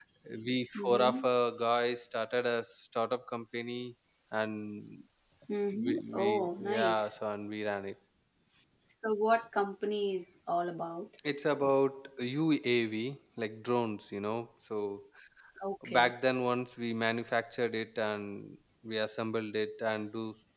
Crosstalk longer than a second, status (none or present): present